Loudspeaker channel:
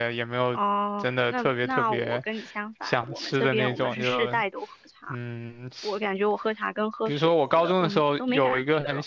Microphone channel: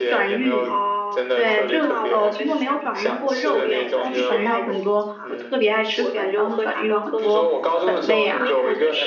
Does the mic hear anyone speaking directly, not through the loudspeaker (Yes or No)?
Yes